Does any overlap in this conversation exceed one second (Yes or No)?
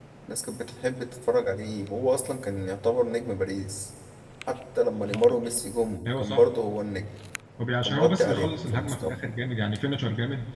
Yes